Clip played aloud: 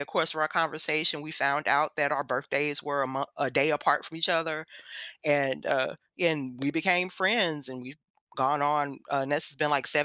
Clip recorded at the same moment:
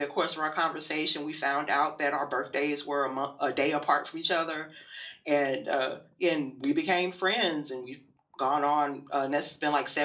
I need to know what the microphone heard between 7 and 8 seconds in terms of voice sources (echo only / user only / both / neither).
echo only